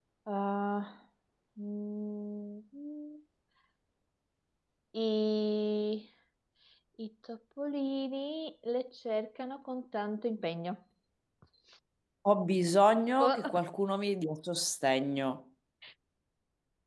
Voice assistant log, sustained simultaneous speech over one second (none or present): none